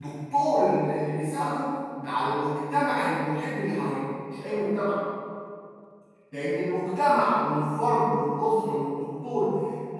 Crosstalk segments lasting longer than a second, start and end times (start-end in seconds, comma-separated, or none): none